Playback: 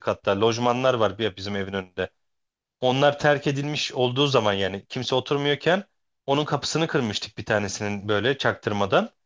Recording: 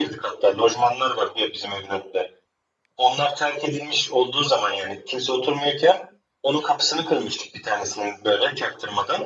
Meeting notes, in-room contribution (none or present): none